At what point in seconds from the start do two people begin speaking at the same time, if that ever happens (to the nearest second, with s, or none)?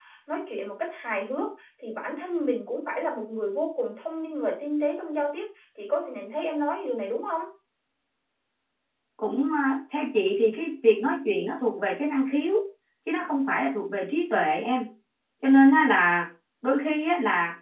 none